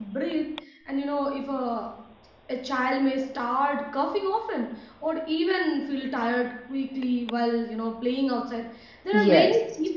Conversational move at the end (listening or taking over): listening